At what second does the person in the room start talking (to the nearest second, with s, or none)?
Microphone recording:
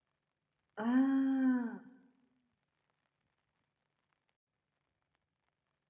1 s